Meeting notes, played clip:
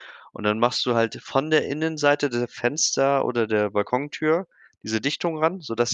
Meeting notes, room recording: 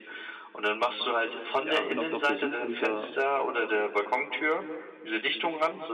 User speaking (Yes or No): Yes